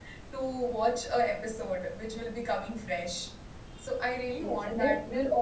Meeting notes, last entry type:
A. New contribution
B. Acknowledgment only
A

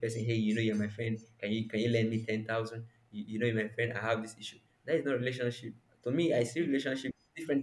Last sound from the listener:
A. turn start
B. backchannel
B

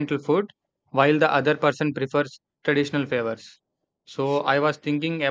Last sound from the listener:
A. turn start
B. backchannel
B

